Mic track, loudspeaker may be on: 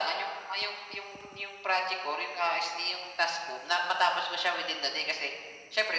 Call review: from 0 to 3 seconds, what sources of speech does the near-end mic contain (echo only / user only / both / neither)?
echo only